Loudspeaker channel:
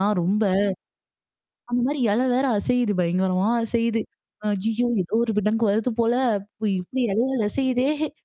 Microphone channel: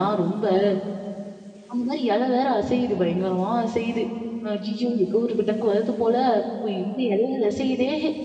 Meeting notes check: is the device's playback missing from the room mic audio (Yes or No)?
No